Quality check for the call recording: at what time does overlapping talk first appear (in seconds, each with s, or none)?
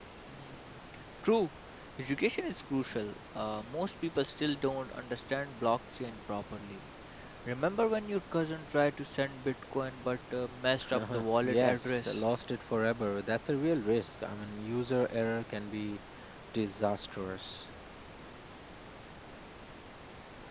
10.8 s